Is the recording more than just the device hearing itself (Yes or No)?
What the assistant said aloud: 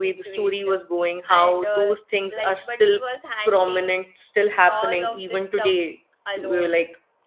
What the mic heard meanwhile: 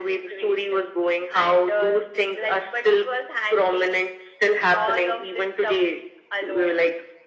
No